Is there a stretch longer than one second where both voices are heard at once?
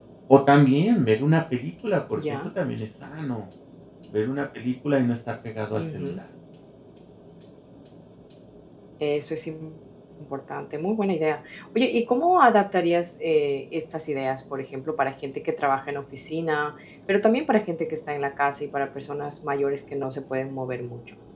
No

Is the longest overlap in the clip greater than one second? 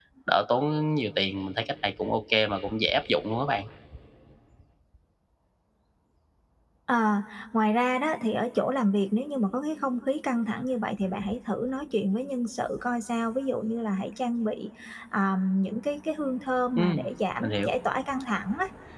No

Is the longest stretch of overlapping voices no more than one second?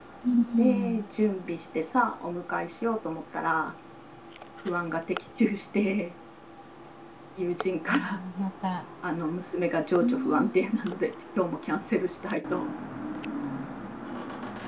Yes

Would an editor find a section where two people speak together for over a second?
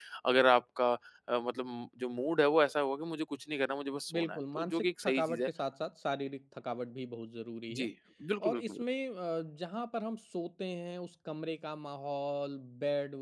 Yes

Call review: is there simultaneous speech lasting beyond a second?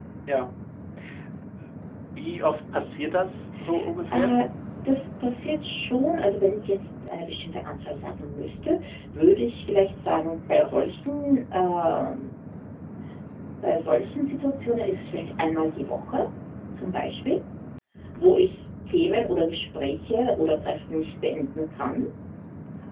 No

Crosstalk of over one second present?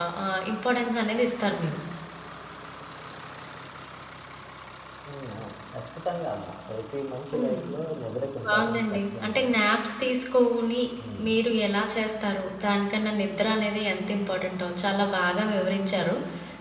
Yes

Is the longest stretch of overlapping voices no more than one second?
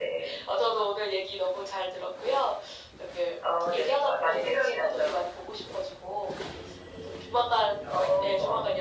No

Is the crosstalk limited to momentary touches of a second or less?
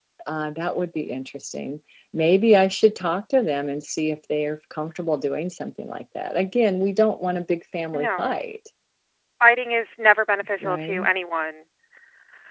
Yes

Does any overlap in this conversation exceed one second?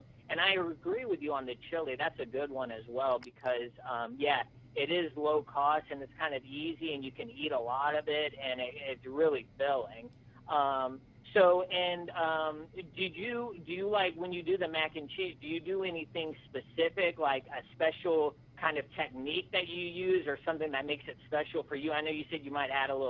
No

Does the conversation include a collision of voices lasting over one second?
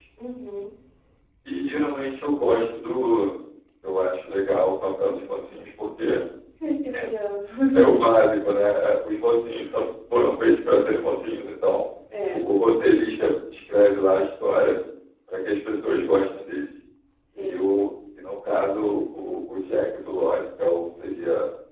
No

